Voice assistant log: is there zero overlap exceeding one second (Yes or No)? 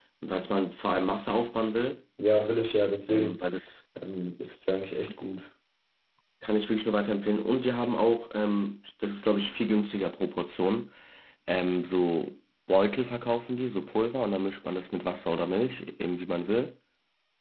Yes